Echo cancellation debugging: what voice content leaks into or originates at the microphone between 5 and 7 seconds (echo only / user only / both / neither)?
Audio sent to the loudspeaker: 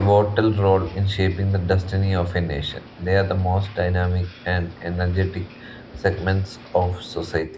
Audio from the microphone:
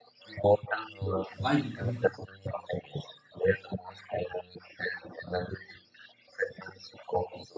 echo only